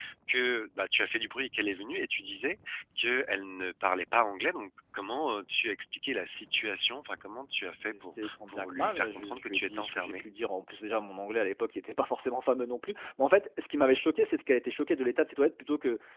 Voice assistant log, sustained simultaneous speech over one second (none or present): present